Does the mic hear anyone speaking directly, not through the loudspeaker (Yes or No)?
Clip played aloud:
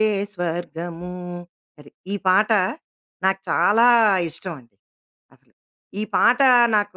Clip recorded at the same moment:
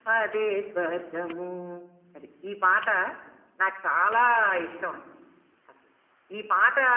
No